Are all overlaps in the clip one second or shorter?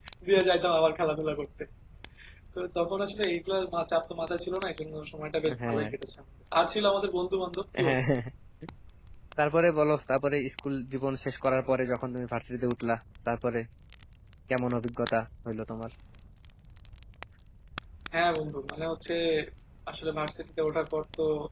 Yes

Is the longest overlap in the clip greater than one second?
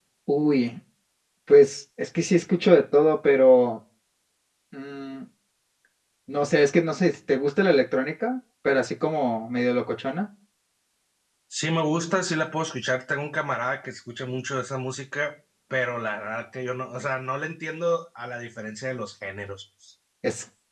No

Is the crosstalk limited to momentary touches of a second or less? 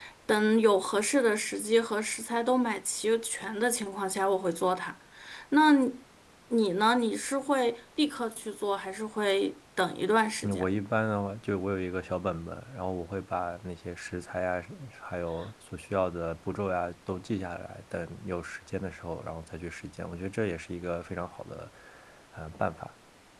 Yes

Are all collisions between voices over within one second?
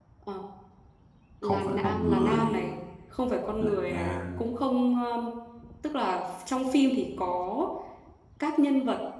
No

